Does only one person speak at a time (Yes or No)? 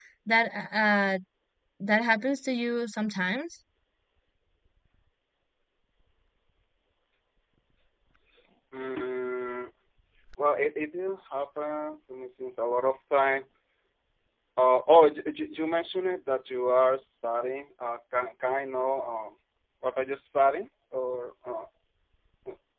Yes